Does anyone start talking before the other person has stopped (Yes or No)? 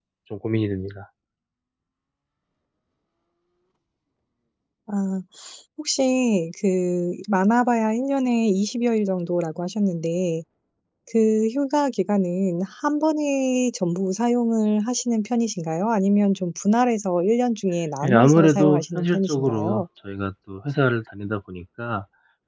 Yes